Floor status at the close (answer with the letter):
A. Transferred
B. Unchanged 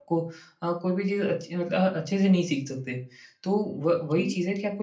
B